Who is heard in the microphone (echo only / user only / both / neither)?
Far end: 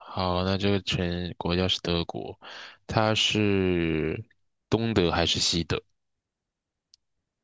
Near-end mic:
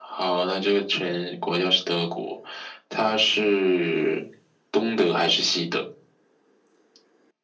echo only